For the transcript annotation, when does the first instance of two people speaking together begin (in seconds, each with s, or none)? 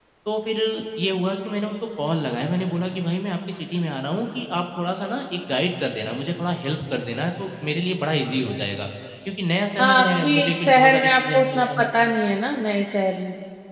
9.8 s